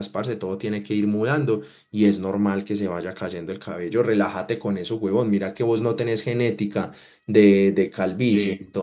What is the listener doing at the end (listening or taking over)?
listening